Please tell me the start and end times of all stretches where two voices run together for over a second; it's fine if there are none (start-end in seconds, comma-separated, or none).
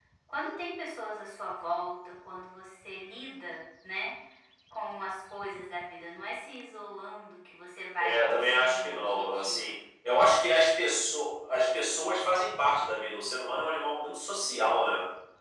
8.0-9.8